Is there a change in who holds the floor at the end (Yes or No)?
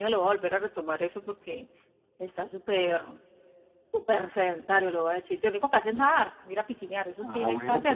Yes